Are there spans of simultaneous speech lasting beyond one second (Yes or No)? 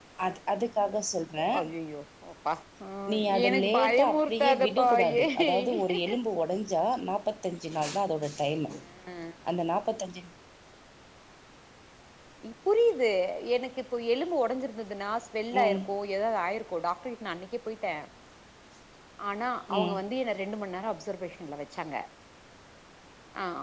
Yes